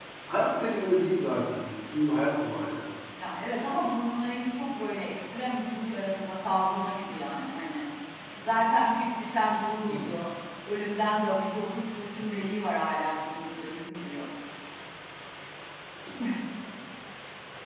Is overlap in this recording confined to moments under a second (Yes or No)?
Yes